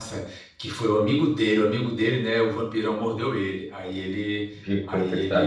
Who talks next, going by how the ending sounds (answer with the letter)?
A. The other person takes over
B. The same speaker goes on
B